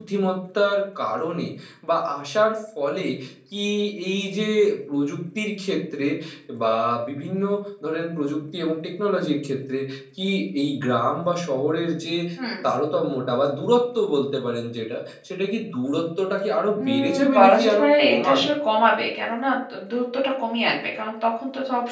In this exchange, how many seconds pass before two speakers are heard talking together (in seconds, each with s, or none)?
16.8 s